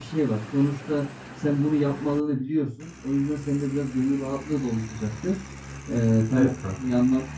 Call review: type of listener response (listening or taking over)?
listening